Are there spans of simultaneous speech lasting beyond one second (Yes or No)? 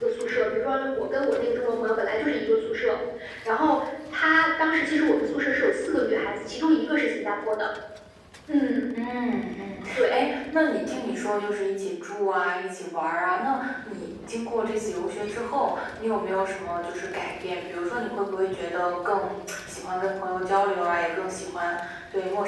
No